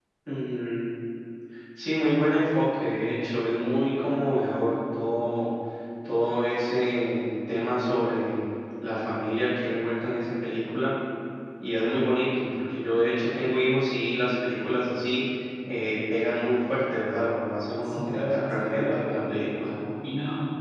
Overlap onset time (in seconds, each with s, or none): 17.8 s